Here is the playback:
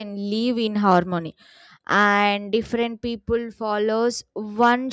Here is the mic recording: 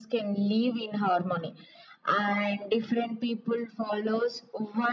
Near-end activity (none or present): none